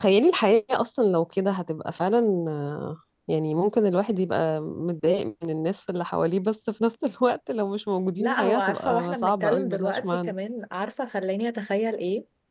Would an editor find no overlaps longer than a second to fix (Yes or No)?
No